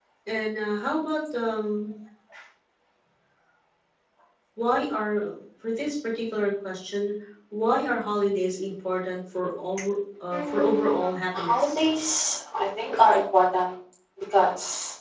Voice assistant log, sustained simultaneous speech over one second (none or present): present